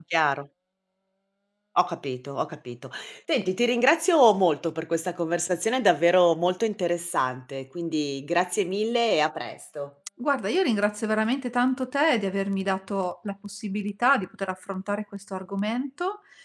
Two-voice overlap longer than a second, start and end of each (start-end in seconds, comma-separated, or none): none